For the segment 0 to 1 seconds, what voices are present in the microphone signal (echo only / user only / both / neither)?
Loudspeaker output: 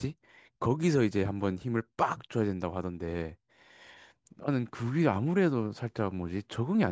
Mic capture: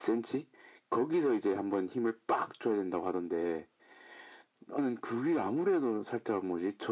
echo only